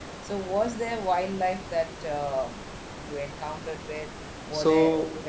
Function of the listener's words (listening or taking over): listening